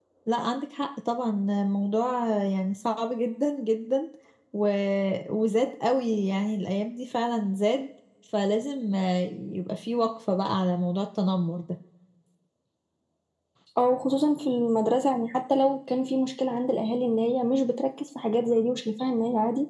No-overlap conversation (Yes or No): Yes